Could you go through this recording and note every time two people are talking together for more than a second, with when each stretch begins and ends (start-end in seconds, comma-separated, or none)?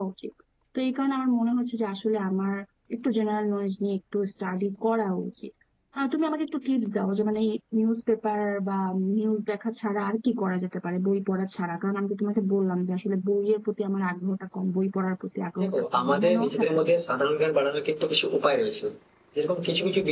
15.6-16.9